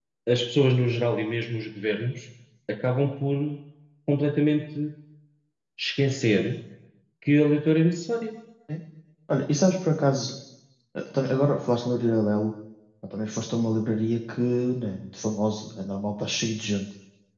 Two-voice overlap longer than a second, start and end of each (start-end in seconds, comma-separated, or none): none